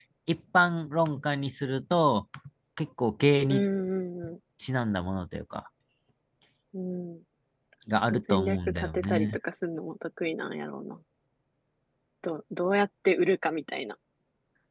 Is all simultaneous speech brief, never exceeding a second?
No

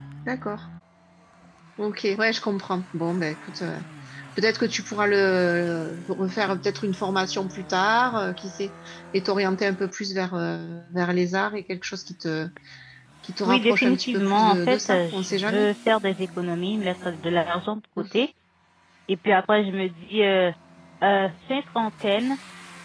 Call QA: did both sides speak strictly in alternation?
No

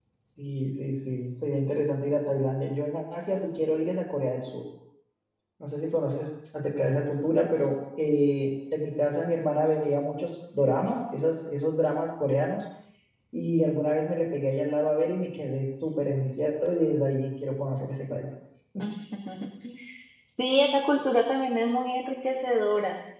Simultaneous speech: No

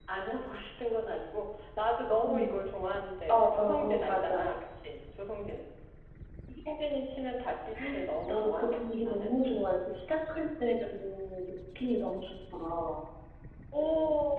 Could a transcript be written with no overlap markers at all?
No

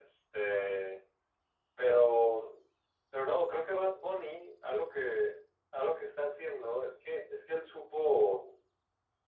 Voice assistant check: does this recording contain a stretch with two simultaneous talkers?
No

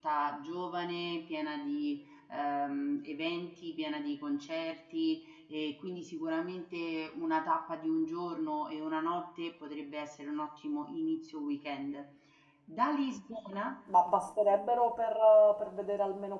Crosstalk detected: No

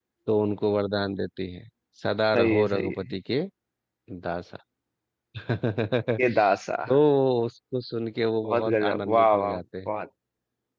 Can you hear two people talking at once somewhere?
Yes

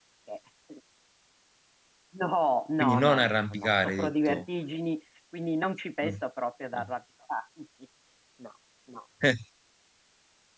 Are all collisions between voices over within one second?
No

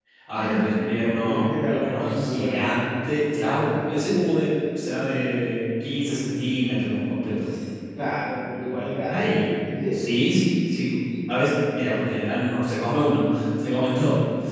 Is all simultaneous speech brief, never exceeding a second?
No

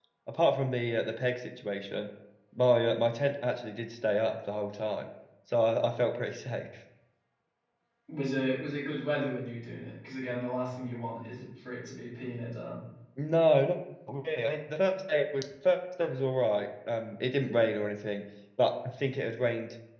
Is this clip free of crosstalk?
Yes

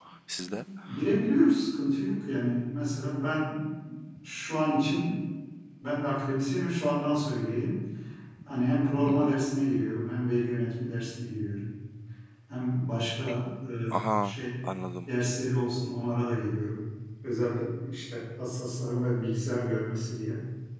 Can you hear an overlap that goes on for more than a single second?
No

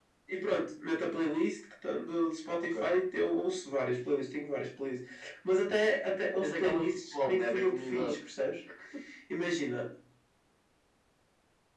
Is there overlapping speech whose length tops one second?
Yes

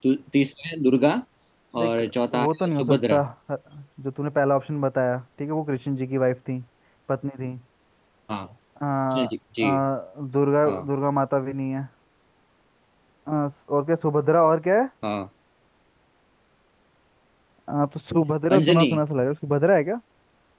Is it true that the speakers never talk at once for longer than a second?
No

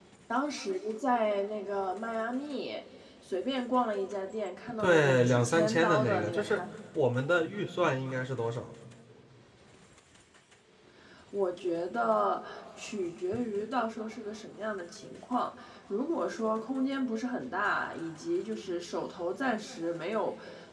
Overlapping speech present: Yes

